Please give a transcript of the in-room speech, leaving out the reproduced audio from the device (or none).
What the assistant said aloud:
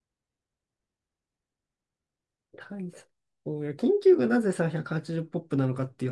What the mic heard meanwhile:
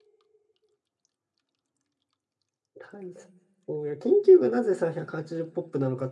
none